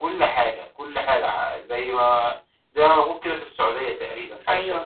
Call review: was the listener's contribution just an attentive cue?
No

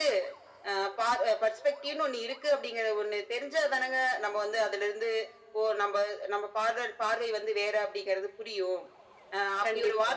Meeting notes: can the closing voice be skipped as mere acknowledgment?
Yes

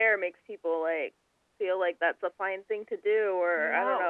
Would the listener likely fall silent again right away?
Yes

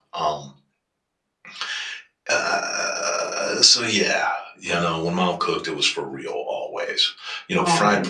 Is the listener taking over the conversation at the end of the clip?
No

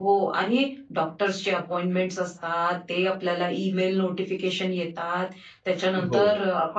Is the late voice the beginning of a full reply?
No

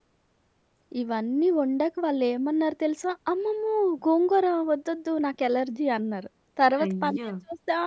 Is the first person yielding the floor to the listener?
No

